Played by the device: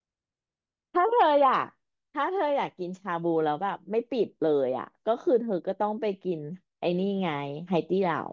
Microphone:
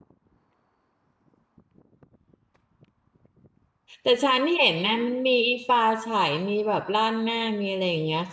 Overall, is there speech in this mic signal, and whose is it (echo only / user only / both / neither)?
user only